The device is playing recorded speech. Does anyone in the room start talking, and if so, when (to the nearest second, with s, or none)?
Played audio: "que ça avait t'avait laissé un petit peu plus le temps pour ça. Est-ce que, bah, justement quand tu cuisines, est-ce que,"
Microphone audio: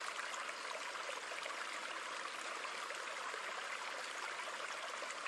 none